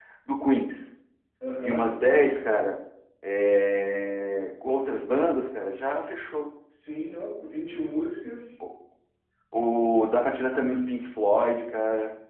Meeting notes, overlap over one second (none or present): none